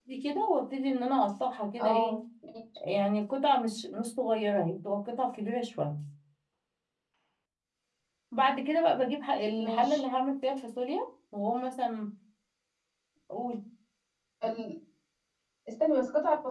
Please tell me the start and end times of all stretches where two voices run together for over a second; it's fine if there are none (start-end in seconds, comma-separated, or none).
none